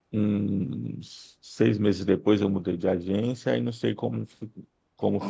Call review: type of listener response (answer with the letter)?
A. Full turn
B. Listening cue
B